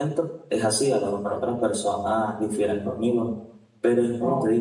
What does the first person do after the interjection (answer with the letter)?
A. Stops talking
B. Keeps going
B